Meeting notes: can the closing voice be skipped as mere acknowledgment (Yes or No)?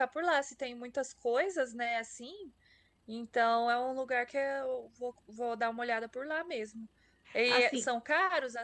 Yes